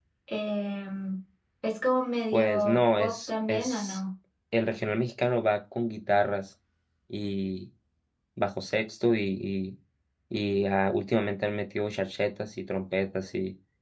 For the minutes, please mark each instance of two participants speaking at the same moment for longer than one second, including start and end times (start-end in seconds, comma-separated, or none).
2.3-4.0